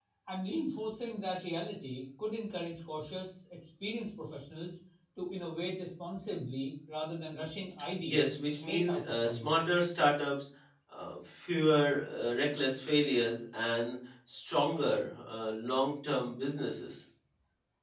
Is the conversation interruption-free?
No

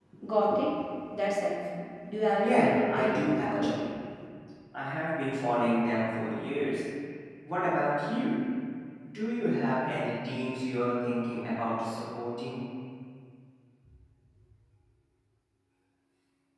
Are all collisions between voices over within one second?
No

